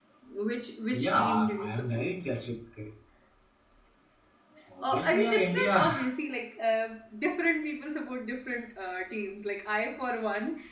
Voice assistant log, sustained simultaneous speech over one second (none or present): present